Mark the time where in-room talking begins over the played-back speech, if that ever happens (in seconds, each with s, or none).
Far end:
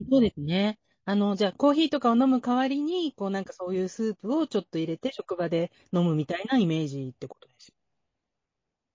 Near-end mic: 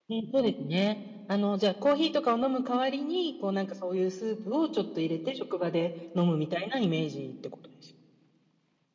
none